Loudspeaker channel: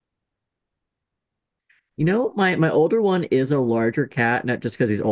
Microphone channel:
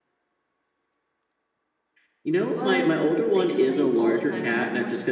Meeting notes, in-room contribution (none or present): present